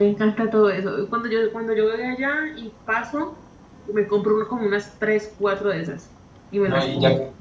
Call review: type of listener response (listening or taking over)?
taking over